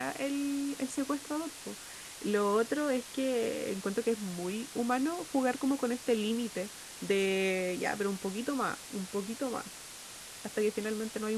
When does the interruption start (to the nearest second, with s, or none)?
none